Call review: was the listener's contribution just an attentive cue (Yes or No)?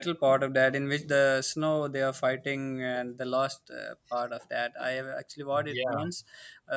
Yes